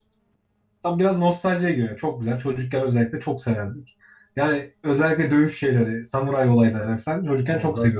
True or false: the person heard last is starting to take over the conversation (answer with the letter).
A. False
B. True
A